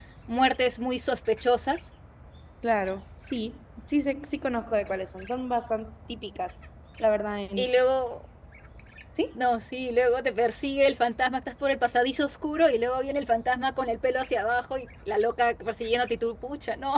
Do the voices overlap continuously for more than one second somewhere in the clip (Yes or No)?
No